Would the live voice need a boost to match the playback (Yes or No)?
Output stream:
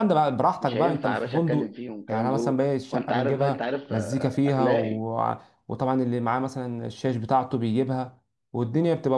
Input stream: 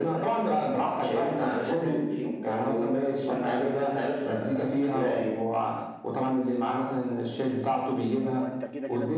Yes